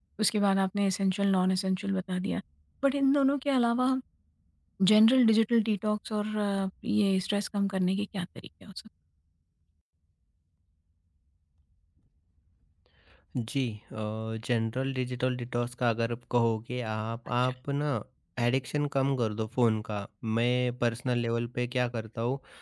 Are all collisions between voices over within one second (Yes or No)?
Yes